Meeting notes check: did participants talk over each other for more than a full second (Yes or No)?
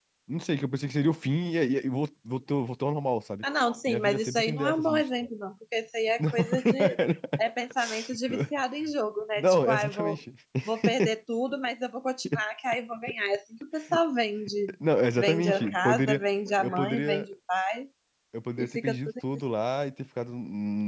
Yes